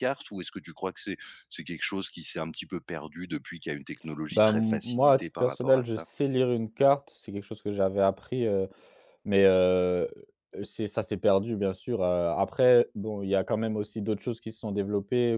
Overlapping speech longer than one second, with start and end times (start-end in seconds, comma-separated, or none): 4.3-6.0